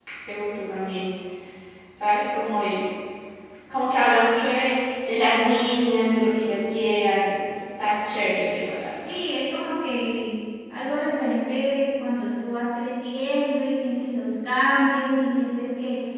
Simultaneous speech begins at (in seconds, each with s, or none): none